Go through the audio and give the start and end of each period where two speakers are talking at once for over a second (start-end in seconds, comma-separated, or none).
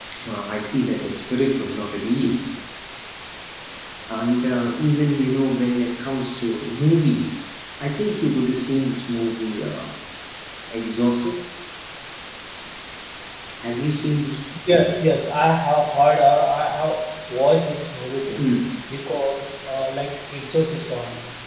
none